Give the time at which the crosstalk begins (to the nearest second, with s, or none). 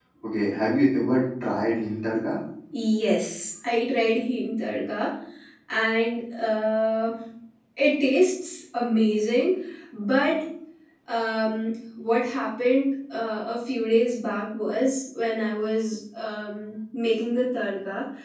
none